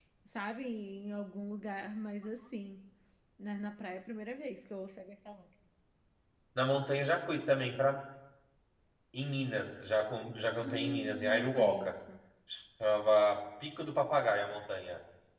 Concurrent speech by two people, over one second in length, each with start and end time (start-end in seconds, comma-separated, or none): 10.6-11.9